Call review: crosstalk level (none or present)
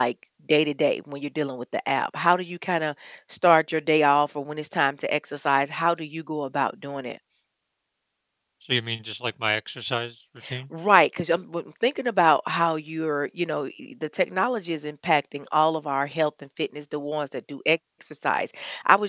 none